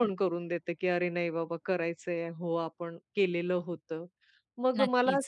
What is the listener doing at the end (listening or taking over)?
listening